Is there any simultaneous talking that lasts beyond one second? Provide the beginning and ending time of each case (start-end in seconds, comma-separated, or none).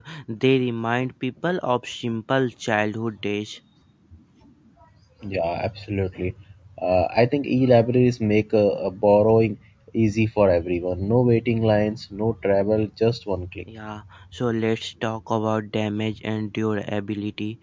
none